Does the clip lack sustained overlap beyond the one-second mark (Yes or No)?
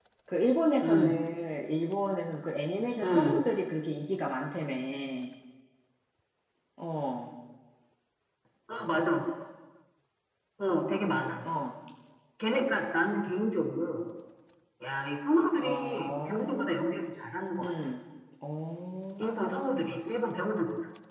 No